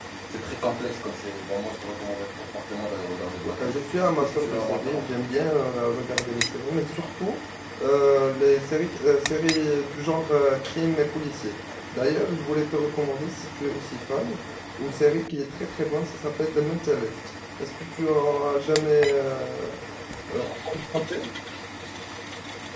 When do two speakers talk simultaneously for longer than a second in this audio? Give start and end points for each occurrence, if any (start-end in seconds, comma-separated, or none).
3.4-5.5